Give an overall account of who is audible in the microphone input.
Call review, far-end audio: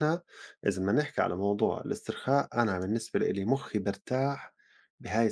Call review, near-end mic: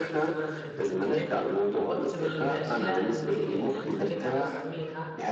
both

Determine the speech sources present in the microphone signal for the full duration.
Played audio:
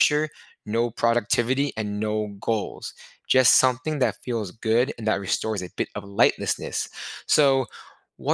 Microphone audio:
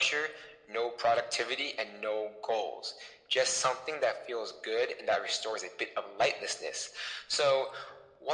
echo only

